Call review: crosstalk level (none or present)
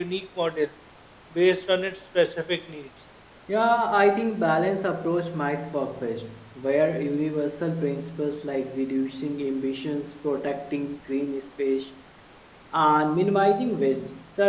none